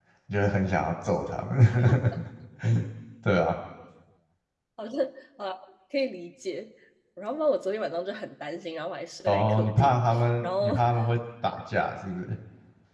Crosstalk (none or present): present